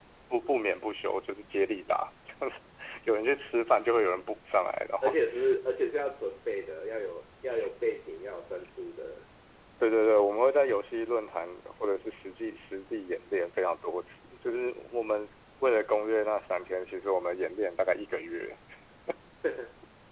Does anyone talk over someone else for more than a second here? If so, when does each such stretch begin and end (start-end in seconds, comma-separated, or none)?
none